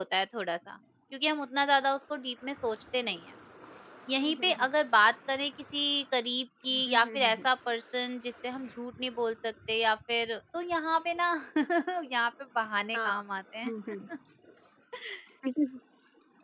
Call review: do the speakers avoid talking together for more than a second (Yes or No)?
Yes